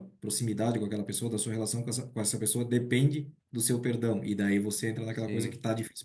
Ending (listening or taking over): listening